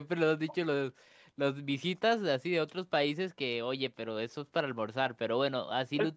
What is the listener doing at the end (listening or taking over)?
taking over